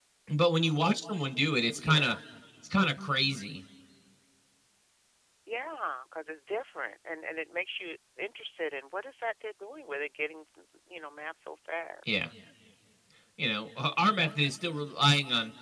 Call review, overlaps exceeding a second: none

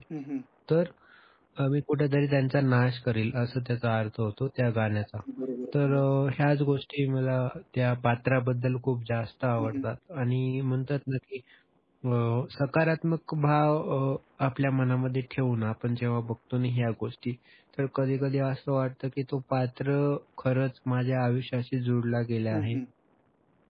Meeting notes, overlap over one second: none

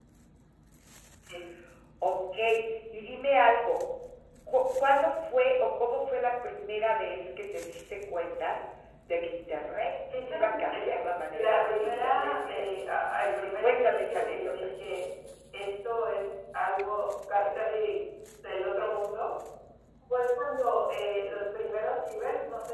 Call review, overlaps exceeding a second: present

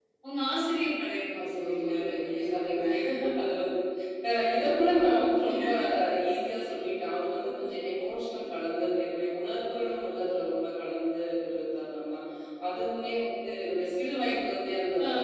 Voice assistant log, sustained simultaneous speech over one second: present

